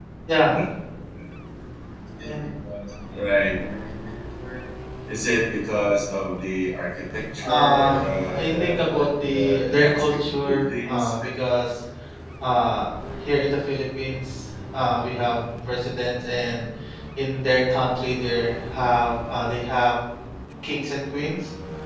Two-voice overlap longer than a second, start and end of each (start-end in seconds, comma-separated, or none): 7.5-11.3